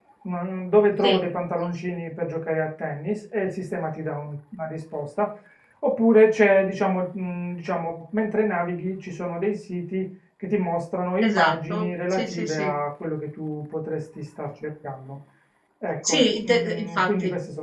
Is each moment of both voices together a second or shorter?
No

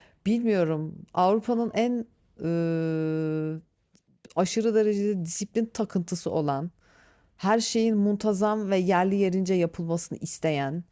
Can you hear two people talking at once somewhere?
No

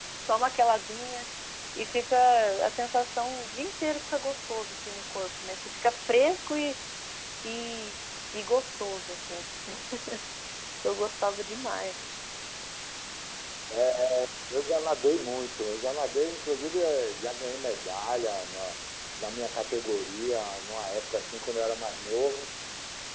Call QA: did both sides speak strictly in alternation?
Yes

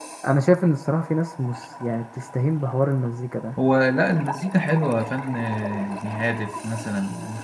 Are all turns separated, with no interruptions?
Yes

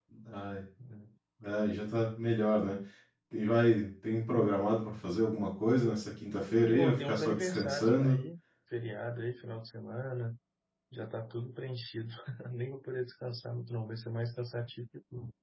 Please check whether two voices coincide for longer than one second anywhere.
Yes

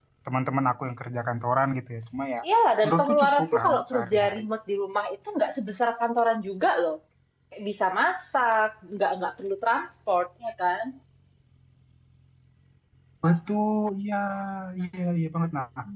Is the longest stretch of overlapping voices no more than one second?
No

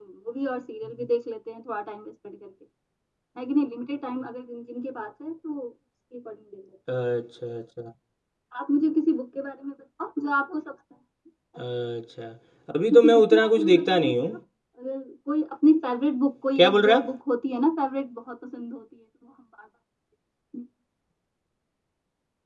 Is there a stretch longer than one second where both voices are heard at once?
Yes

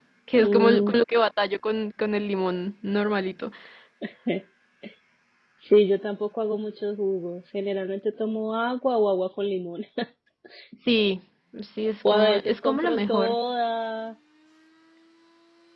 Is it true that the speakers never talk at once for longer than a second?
No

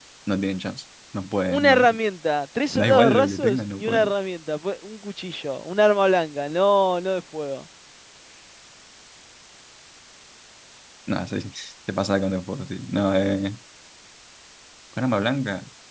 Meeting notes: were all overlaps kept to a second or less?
No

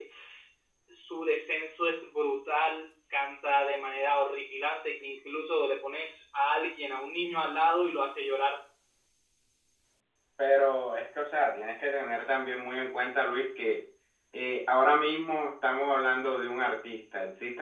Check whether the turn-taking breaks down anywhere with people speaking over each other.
No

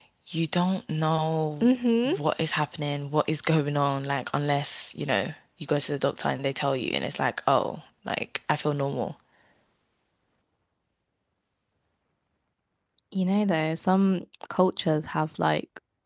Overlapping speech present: No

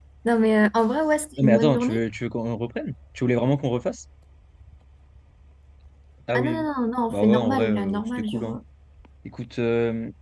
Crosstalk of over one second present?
Yes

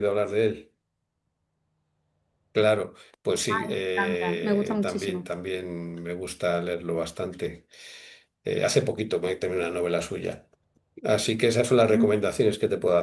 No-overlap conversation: No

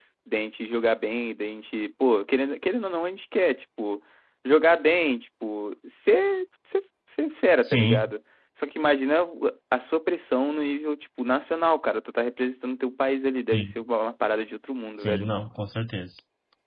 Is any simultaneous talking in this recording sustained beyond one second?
No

